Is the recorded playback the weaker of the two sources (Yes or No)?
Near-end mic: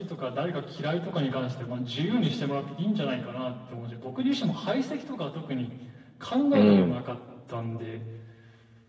Yes